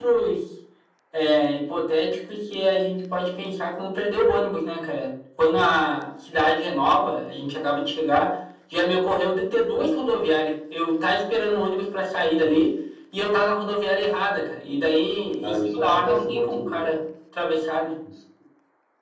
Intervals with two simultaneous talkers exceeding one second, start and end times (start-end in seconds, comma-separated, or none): 15.4-16.9